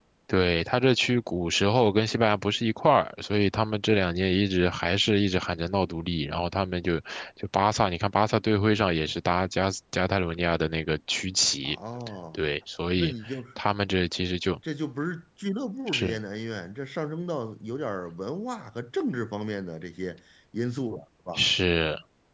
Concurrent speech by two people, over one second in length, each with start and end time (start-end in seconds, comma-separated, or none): none